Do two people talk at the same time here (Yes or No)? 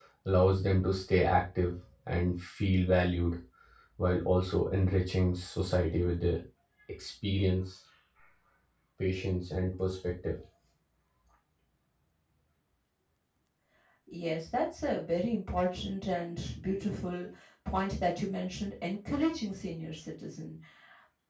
No